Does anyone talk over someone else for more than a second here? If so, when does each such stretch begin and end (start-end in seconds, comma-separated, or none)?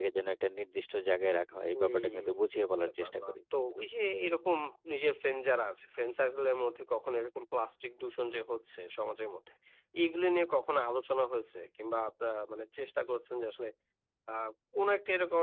1.7-3.4